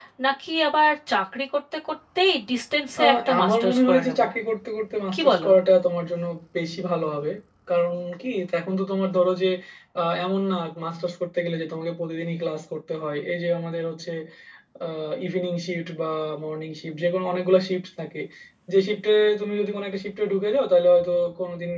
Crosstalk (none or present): present